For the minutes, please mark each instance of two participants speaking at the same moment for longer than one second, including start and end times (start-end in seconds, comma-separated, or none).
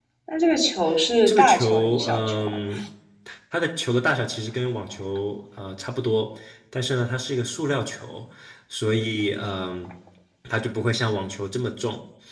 1.3-2.6